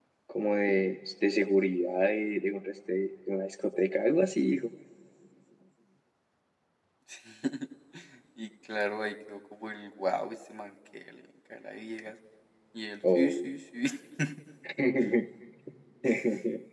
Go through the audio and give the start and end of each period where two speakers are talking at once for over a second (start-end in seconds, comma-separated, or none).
none